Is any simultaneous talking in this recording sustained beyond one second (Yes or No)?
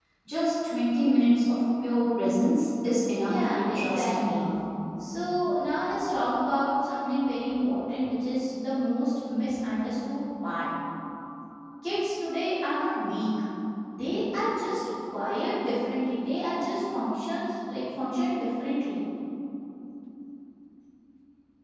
Yes